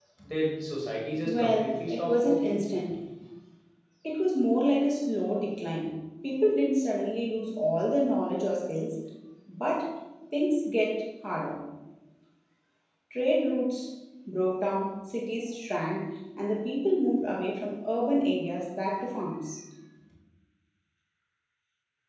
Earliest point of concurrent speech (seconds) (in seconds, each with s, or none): 1.3 s